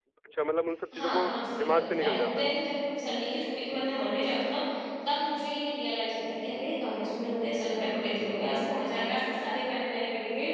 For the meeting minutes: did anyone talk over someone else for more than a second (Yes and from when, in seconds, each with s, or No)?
Yes, from 0.9 s